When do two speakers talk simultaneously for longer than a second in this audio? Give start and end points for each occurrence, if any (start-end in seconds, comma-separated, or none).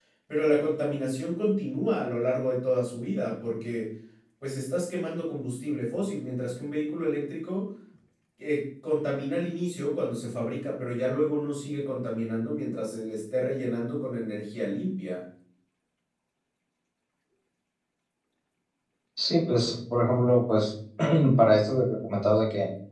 none